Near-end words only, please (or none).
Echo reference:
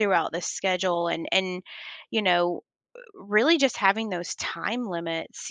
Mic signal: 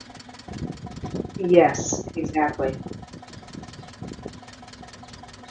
Yes, exactly.